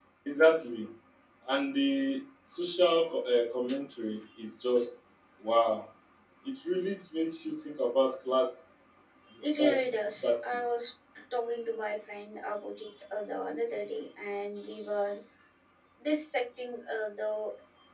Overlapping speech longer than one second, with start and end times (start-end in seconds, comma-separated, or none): 9.4-10.6